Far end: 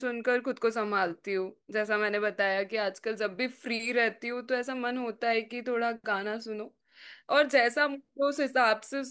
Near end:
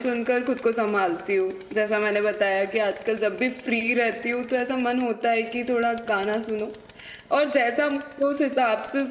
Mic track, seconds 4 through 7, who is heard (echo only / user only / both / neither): echo only